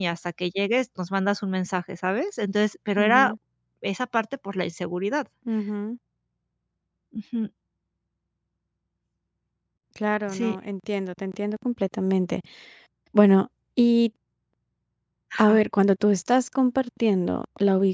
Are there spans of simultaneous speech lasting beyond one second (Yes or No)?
No